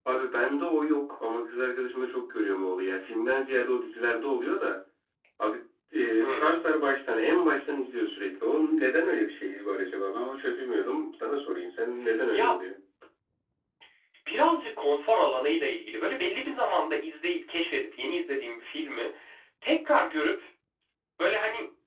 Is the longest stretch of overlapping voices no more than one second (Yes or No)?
Yes